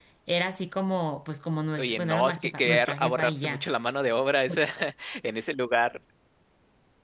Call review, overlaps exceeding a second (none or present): present